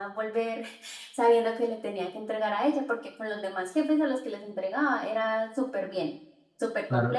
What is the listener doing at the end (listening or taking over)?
taking over